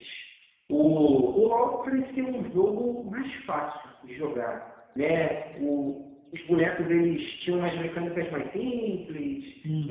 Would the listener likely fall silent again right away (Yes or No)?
Yes